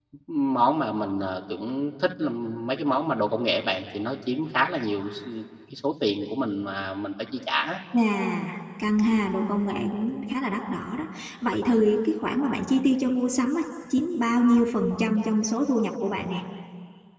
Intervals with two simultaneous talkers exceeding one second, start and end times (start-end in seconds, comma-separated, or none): none